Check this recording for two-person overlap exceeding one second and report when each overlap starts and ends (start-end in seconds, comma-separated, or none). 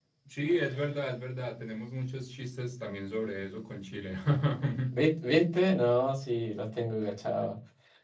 none